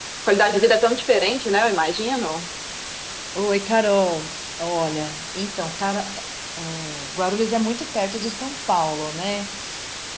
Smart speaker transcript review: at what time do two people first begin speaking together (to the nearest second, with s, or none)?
none